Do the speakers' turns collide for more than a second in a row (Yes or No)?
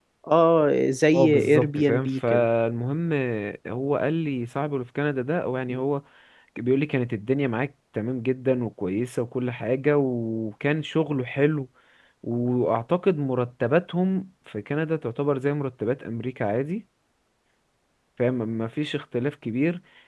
Yes